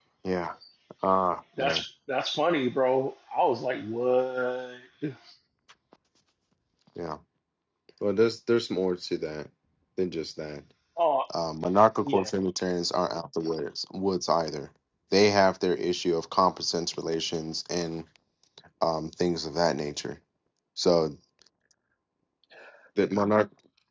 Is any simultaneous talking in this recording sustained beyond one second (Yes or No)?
No